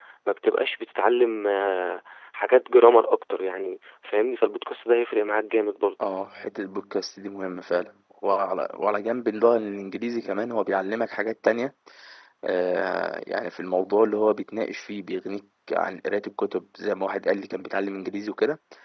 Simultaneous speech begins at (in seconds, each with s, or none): none